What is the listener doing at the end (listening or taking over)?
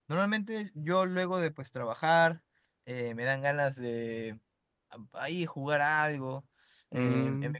listening